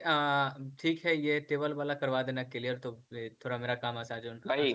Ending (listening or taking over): taking over